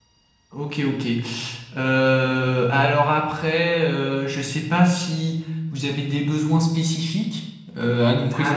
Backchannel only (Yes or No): No